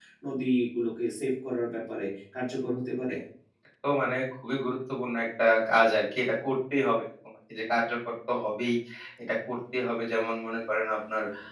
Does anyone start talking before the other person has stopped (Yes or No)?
No